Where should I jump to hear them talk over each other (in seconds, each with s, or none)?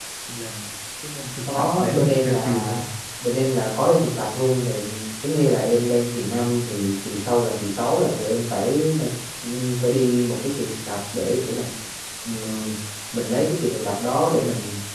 1.4 s